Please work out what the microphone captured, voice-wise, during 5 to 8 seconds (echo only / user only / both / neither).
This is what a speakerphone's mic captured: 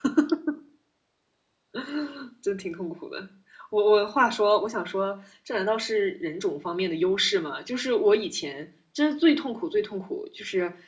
user only